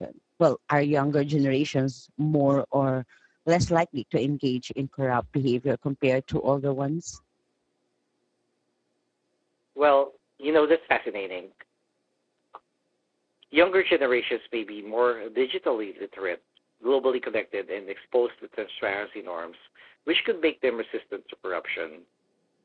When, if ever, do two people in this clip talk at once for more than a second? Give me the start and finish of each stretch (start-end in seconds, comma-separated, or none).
none